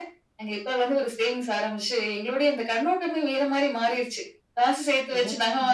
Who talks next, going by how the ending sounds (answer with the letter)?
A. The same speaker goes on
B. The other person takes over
A